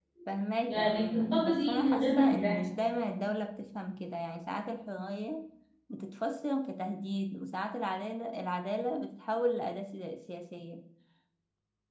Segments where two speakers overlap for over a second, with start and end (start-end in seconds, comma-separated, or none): 0.7-2.6